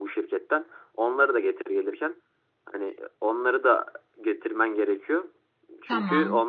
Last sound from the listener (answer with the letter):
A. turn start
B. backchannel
B